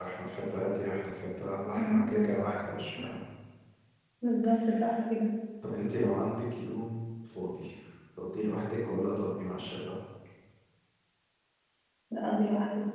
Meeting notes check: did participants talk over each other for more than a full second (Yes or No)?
No